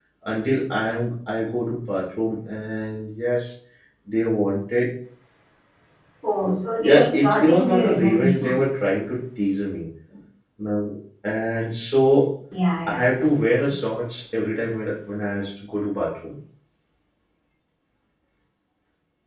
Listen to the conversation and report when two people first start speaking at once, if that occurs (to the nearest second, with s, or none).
7 s